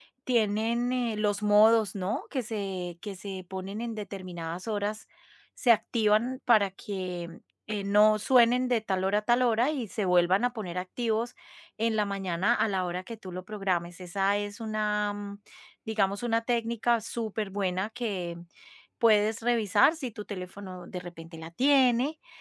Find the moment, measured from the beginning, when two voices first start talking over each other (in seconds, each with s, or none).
none